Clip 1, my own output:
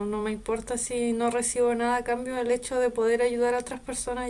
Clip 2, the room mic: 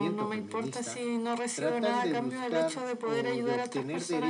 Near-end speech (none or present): present